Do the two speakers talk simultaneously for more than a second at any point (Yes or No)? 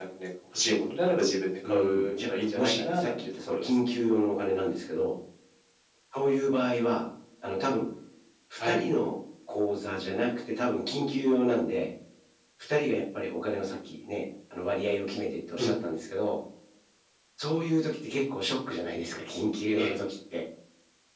Yes